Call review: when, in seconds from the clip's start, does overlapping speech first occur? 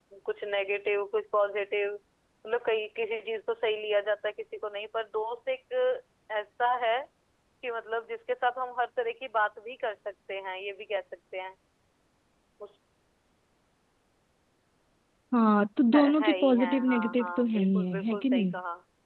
16.0 s

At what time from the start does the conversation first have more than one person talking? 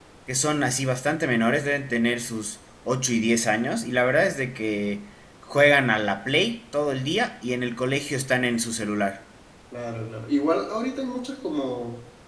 none

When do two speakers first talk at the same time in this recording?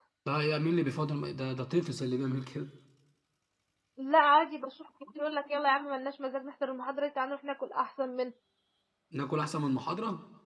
none

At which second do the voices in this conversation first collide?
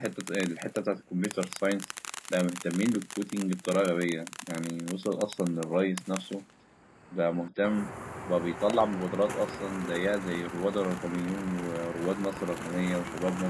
none

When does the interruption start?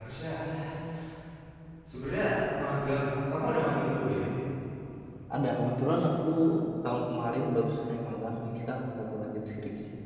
none

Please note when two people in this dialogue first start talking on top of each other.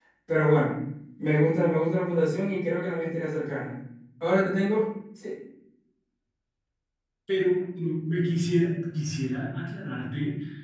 none

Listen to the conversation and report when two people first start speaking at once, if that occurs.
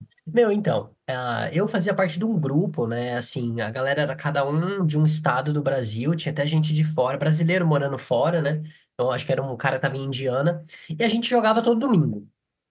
none

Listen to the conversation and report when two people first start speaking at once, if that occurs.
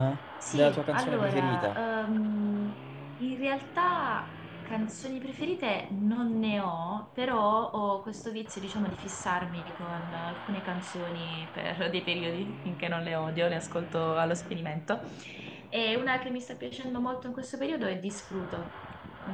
0.5 s

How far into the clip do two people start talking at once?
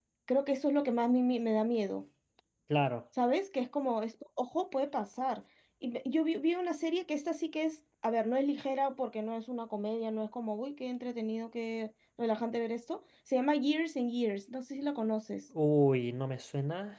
none

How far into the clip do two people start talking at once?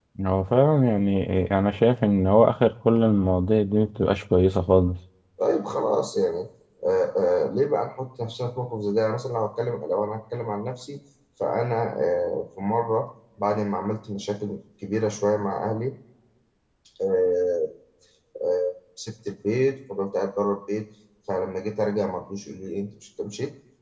none

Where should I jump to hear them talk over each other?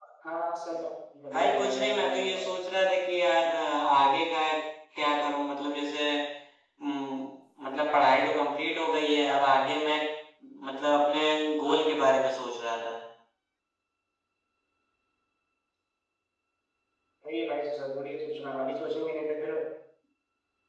1.3 s

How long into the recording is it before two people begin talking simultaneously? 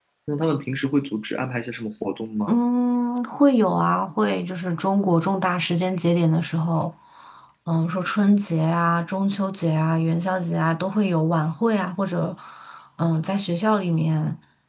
none

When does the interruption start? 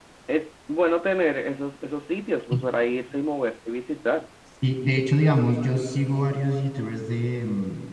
none

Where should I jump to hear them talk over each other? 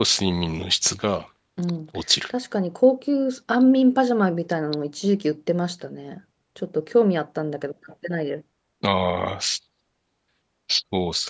none

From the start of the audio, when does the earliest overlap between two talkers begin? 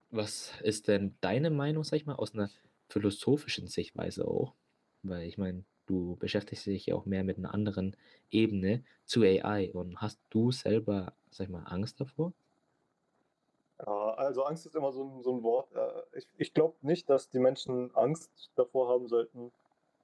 none

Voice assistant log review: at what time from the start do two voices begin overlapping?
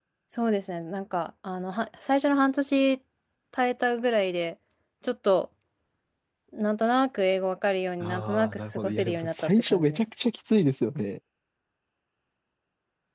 8.0 s

